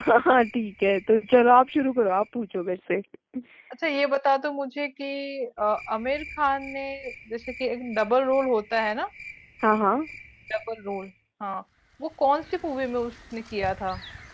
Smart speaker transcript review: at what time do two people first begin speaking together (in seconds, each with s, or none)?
none